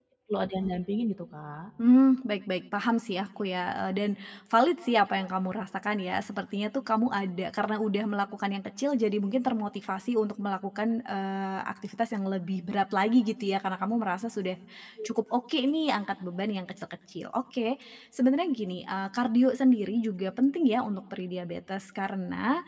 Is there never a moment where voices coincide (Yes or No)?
Yes